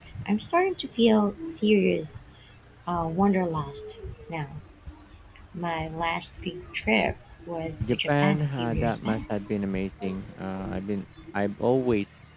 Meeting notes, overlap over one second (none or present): present